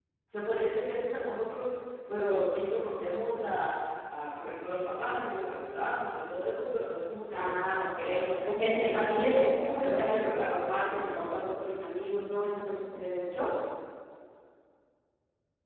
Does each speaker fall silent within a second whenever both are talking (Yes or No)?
No